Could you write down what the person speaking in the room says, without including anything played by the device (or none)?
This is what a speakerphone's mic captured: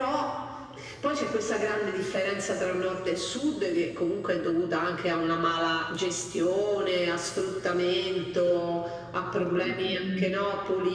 none